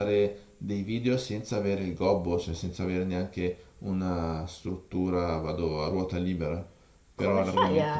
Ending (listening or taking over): taking over